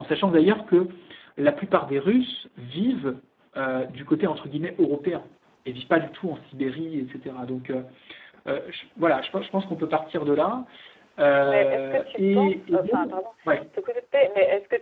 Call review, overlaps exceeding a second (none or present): present